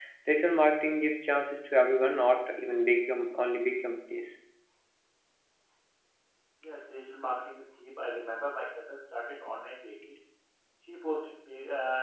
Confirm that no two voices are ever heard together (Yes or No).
Yes